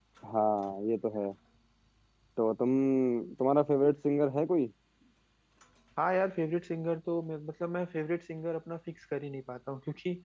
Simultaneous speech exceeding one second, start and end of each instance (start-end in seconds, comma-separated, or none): none